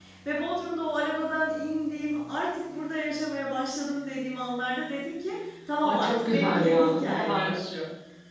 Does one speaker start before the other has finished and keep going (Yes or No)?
Yes